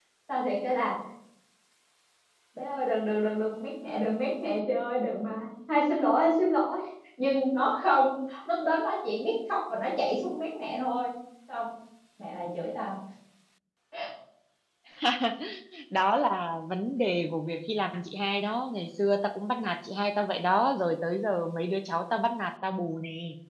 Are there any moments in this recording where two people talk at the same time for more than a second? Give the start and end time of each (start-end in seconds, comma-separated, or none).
none